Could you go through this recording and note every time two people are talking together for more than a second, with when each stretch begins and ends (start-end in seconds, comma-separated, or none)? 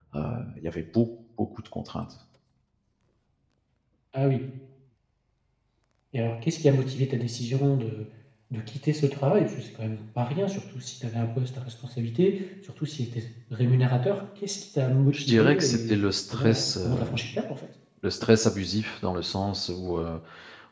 15.1-17.0